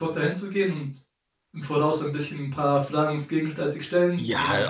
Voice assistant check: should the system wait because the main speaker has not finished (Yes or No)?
No